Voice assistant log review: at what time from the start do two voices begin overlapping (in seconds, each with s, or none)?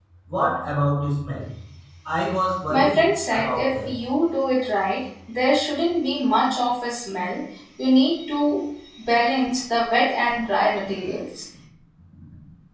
2.7 s